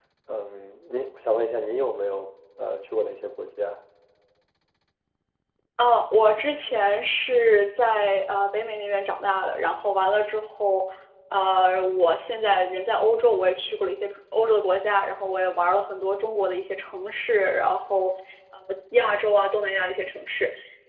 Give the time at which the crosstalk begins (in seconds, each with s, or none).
none